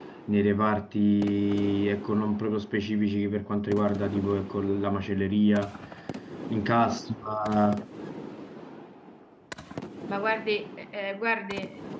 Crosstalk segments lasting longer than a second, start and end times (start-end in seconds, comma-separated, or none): none